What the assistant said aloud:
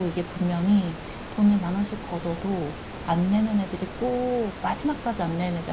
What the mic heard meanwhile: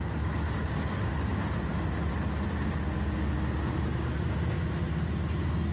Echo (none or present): none